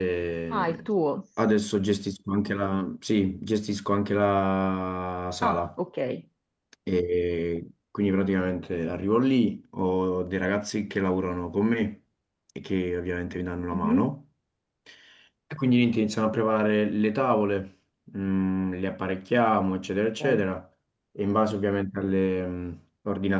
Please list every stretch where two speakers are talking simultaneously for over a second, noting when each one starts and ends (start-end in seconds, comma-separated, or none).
none